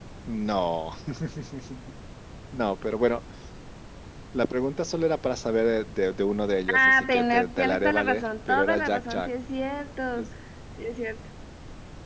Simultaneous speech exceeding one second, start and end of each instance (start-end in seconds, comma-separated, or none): 6.7-9.3